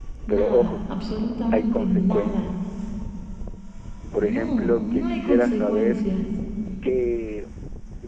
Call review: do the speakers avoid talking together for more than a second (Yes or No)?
No